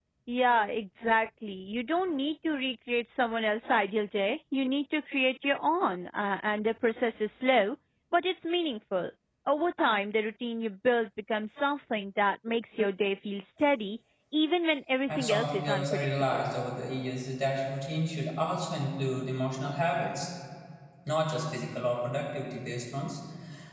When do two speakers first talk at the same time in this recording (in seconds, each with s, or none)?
15.1 s